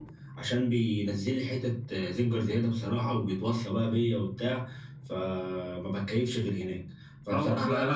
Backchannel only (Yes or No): No